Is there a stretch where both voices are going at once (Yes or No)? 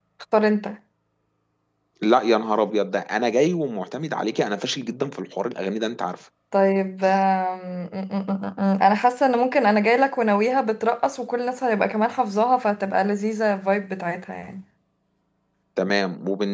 No